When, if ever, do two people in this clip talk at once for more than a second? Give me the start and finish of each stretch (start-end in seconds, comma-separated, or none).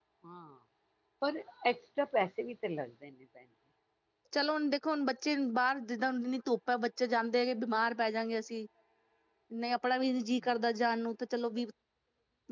none